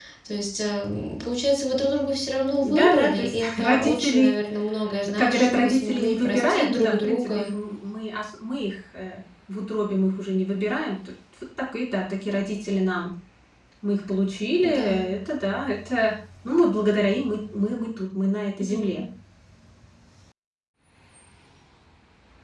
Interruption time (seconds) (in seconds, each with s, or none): 2.6 s